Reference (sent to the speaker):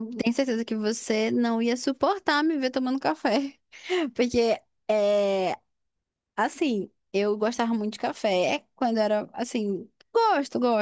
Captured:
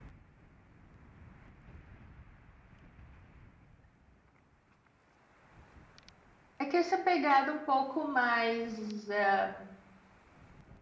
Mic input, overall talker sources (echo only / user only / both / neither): user only